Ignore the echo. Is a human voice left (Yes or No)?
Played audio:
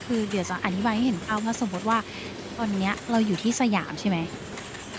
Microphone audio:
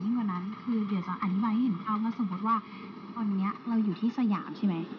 No